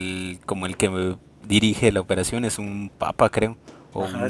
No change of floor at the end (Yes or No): No